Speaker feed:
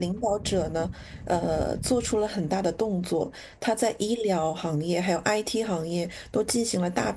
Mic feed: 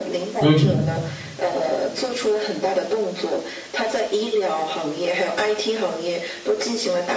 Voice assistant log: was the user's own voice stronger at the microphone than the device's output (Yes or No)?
Yes